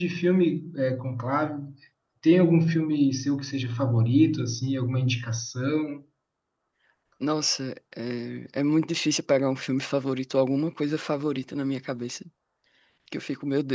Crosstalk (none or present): none